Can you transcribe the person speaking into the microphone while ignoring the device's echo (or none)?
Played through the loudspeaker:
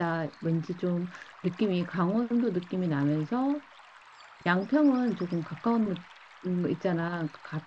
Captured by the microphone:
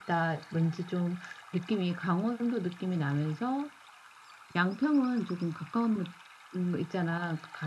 none